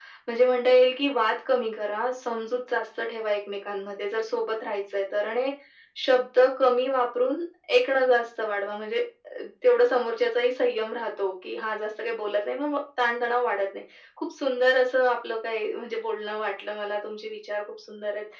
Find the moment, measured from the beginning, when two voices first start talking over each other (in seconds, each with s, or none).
none